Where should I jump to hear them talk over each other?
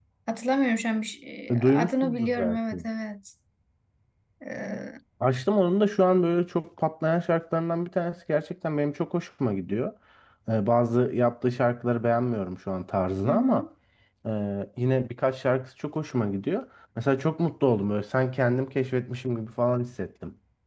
1.5 s

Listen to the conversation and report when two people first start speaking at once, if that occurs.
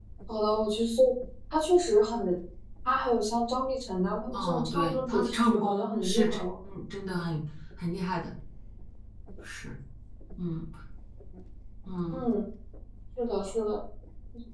4.3 s

